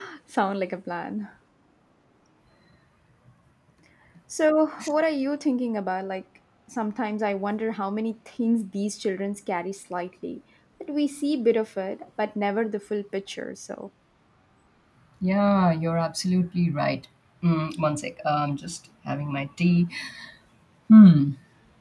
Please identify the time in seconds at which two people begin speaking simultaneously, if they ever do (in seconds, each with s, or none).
none